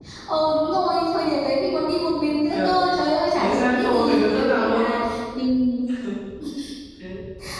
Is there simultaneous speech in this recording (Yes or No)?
Yes